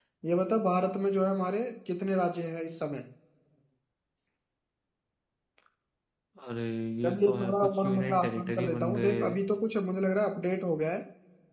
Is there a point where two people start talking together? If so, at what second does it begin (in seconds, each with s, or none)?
7.0 s